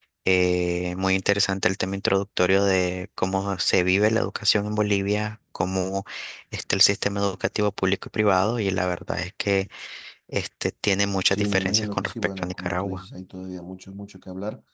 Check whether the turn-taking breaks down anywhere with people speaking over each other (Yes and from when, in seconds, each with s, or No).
Yes, from 11.3 s